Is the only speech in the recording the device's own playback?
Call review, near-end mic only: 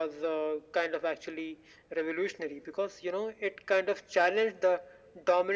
Yes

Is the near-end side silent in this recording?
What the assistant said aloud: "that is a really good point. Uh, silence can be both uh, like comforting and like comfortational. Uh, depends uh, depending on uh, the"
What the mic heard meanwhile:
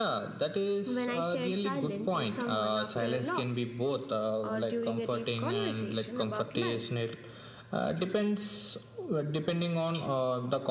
No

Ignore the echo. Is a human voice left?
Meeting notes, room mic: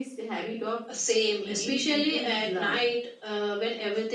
No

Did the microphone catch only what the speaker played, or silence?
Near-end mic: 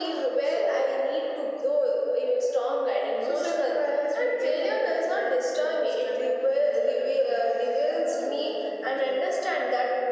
Yes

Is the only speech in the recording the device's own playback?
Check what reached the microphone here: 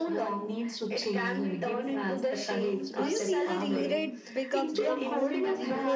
No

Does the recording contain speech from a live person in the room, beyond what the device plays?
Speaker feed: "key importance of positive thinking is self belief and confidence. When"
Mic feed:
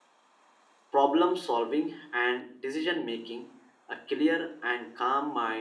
Yes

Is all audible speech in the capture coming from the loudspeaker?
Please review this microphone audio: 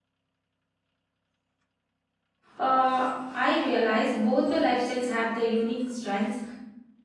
No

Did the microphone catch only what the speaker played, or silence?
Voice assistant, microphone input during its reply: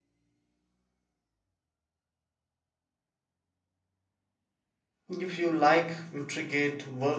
No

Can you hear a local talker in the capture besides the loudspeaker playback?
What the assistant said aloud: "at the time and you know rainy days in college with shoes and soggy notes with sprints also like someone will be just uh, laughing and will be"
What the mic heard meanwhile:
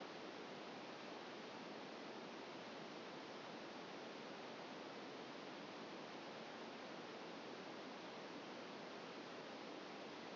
No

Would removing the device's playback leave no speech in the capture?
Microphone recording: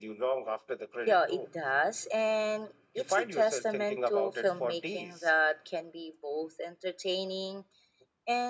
Yes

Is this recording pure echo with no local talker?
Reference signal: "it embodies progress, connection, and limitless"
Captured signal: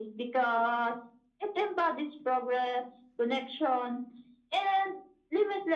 Yes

